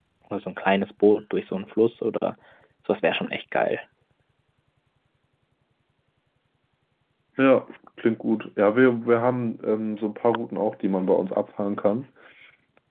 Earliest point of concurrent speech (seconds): none

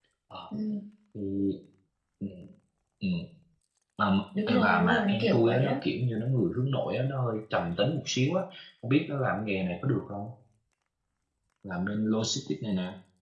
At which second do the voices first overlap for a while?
4 s

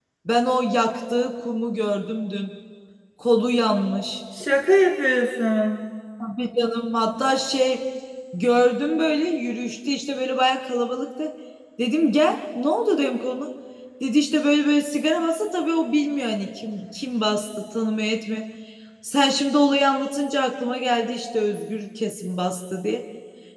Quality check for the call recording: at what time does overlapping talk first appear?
none

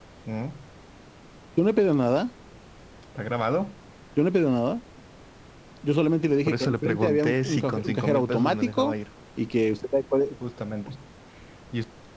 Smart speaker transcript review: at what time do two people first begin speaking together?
6 s

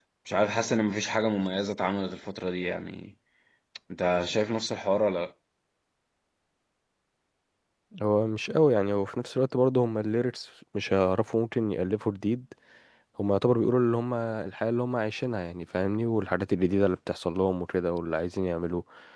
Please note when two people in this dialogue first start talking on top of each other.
none

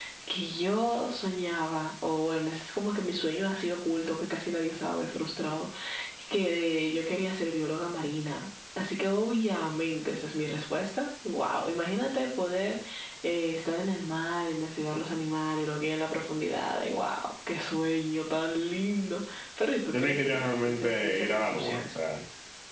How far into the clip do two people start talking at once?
20 s

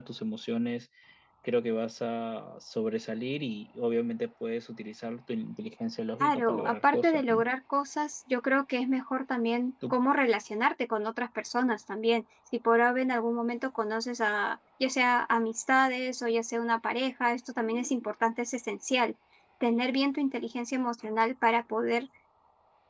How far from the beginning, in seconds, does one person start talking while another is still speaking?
6 s

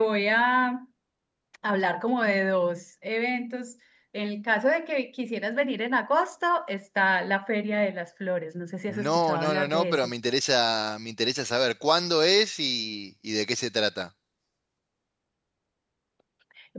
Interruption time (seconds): 9 s

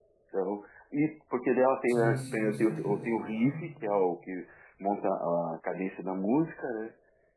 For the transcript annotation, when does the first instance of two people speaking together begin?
2 s

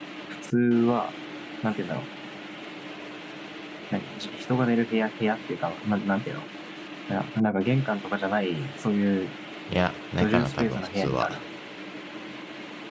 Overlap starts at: 10 s

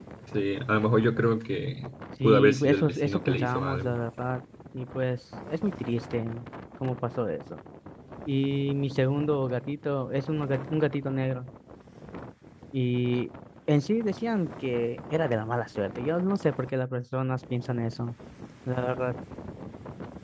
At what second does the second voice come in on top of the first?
2 s

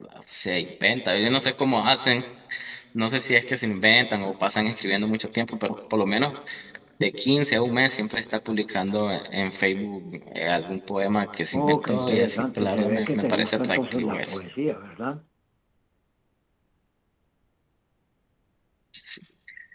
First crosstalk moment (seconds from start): 12 s

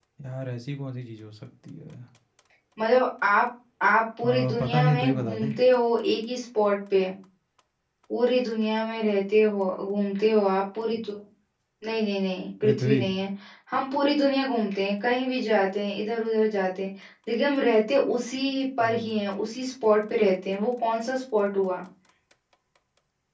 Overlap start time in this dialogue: 4 s

